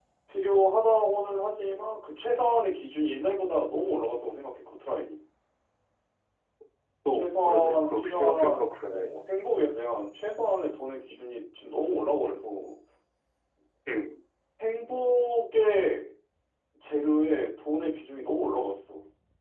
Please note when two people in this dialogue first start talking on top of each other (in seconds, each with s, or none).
7.1 s